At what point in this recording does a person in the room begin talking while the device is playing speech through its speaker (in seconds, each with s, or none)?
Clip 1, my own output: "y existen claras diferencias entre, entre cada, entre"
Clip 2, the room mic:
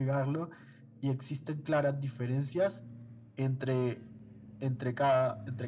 none